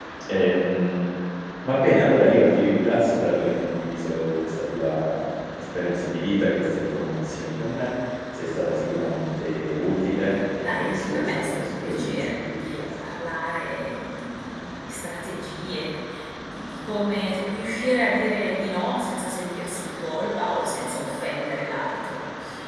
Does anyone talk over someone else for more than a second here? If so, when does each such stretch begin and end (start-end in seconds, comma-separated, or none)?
10.6-12.4